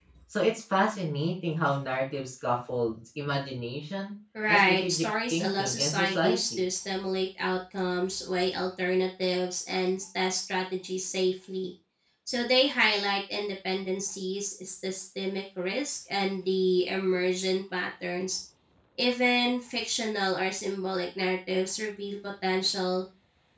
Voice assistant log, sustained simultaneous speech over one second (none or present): present